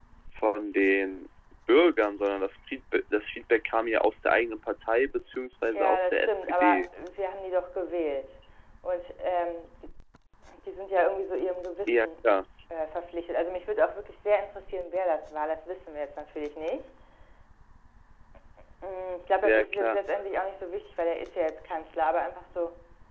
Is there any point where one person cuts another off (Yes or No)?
Yes